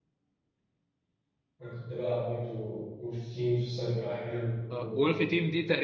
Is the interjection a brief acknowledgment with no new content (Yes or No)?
No